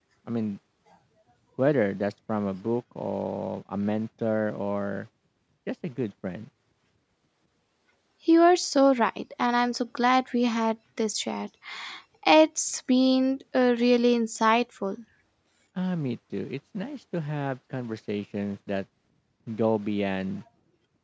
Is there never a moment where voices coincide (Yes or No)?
Yes